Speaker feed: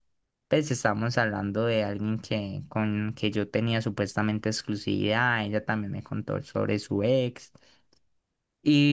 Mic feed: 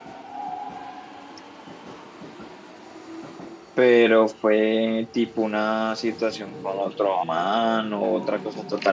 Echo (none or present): none